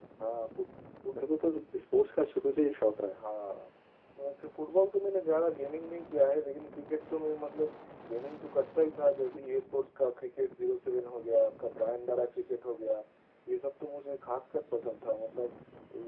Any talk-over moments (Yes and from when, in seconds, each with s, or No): No